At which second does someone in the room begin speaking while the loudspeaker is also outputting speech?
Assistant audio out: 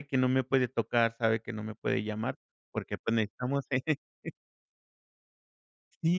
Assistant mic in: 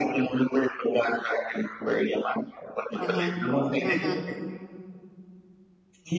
3.0 s

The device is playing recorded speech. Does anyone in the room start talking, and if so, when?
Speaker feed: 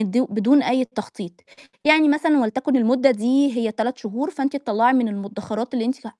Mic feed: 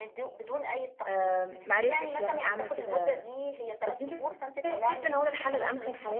1.1 s

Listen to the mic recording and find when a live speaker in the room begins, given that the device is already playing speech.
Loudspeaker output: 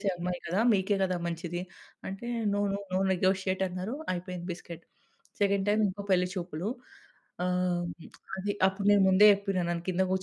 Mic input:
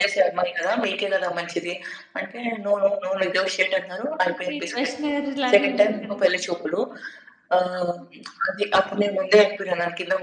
4.3 s

